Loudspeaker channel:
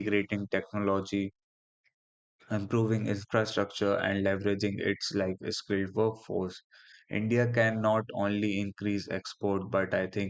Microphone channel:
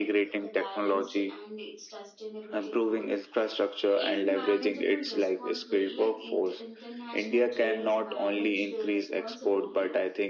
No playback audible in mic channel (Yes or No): No